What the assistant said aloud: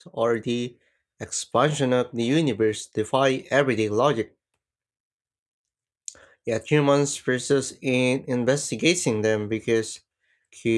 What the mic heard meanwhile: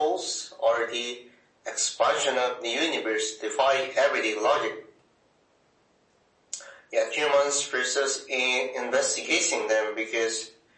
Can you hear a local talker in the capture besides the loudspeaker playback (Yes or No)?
No